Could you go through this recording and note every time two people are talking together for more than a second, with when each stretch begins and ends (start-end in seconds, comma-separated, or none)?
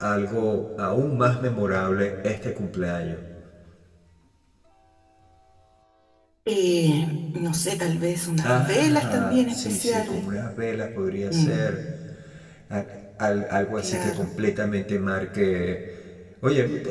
8.4-10.2